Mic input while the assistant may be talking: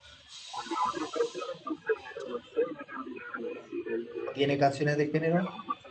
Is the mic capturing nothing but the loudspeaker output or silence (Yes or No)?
No